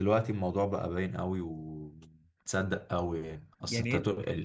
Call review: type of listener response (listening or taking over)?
listening